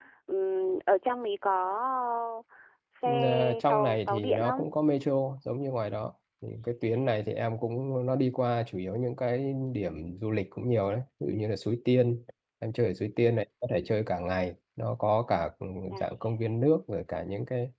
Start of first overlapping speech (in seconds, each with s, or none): 3.0 s